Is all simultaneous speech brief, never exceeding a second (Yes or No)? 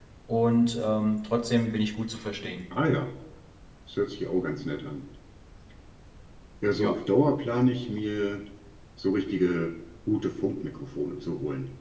Yes